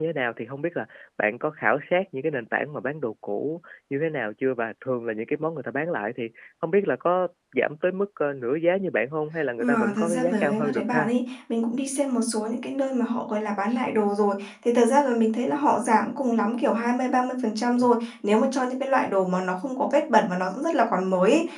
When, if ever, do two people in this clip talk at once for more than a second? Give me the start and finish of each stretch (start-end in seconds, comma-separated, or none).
9.8-11.1